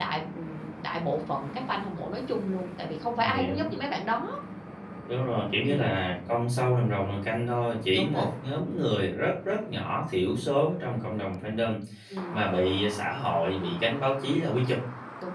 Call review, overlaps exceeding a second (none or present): none